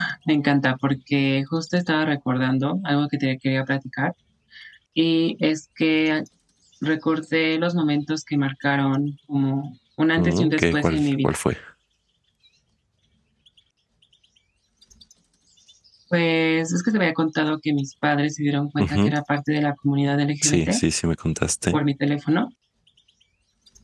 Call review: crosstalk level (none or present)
present